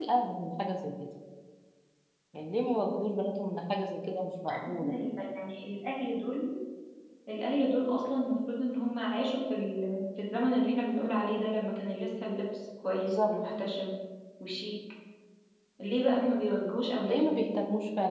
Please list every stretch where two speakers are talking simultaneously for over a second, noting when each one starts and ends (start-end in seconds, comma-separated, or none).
none